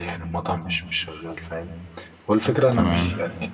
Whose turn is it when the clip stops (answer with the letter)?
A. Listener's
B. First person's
B